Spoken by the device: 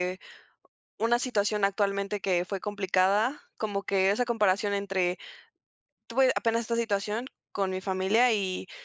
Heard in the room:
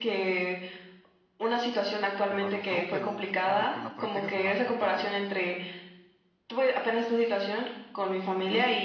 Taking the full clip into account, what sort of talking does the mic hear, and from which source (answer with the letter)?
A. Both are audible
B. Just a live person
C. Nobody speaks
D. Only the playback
A